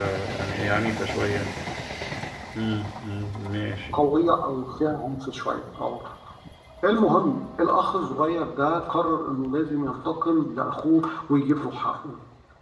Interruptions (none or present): none